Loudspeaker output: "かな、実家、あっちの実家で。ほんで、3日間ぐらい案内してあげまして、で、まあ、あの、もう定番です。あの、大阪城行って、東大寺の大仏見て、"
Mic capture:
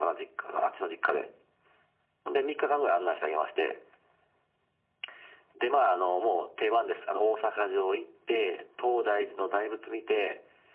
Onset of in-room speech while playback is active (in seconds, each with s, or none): none